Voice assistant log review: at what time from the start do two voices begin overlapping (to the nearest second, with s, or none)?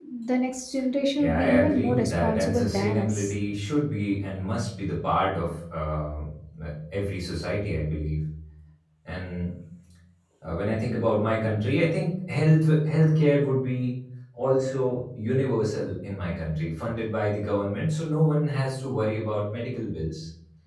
1 s